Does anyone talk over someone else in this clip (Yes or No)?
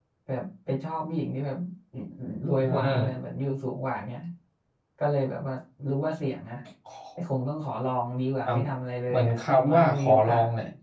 Yes